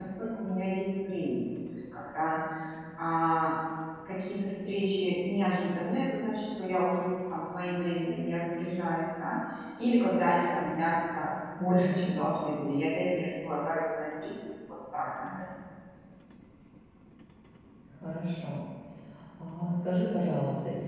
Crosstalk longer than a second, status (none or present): none